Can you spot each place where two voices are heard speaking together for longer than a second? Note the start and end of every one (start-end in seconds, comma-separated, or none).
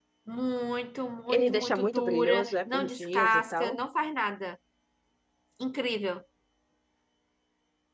1.3-3.8